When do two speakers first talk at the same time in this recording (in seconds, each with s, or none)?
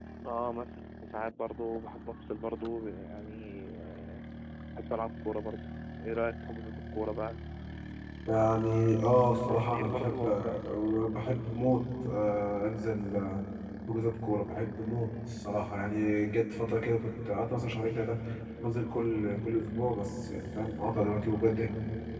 9.3 s